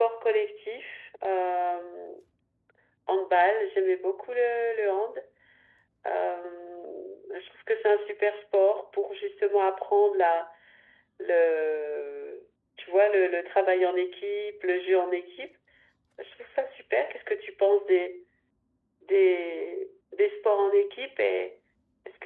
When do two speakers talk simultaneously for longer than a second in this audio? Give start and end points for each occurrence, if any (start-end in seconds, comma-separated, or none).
none